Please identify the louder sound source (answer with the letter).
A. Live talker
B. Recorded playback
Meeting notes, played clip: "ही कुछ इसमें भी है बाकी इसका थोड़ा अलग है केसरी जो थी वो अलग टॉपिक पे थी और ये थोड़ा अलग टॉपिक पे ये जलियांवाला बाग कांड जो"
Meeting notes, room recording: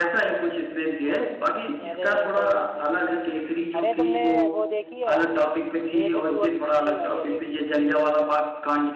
B